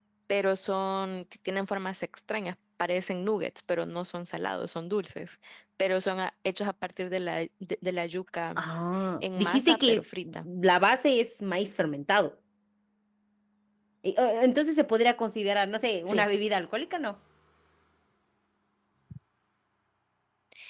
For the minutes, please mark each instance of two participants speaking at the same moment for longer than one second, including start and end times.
9.2-10.5

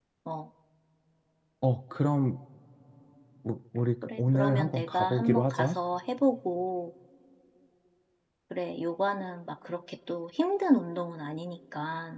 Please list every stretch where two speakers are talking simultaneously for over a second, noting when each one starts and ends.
4.2-5.8

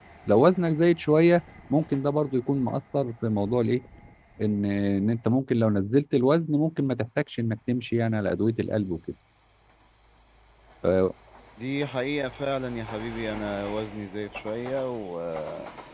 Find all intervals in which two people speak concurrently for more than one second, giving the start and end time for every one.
none

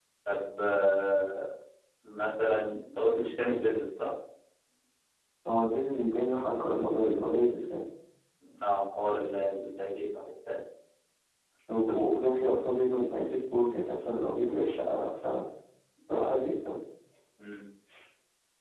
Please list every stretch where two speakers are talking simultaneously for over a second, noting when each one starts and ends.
none

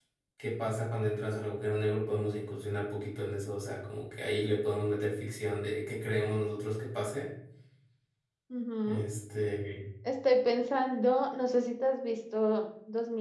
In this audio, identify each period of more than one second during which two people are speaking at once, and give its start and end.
none

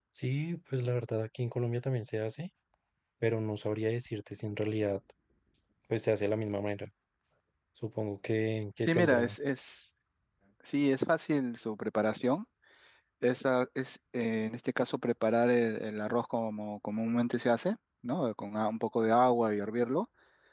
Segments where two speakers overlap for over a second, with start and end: none

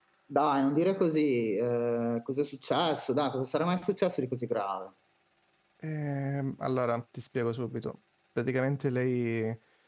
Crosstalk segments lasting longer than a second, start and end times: none

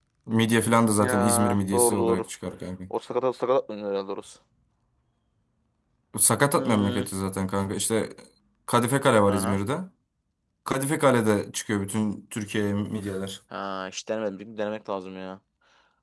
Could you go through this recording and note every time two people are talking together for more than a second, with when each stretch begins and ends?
1.0-2.2

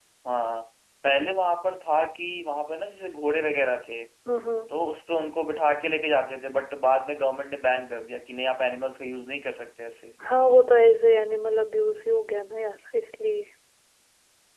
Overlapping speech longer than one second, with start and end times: none

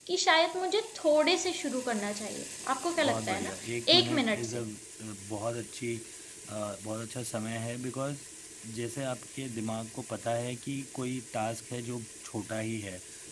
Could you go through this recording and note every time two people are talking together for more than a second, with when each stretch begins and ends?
3.0-4.6

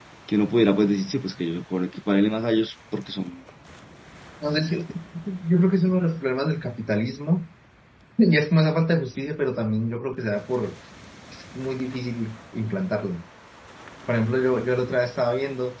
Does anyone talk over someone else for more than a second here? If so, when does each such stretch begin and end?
none

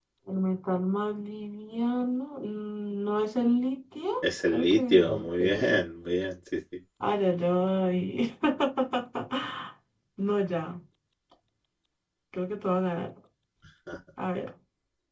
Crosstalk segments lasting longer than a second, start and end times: 4.2-5.8

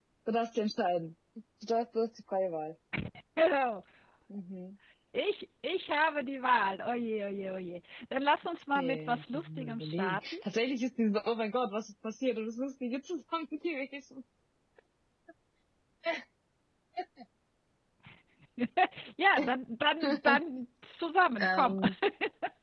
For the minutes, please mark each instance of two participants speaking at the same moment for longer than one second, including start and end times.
8.8-10.4

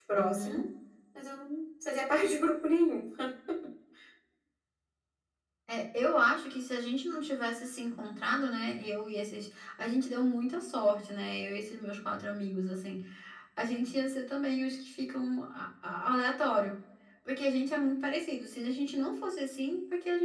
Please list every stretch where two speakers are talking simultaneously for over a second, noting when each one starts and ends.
none

